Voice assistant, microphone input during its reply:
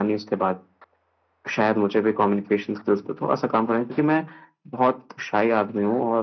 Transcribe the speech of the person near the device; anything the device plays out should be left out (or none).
none